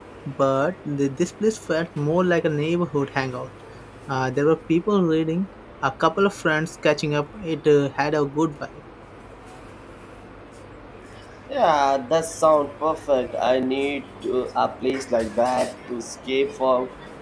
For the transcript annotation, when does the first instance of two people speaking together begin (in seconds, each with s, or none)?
none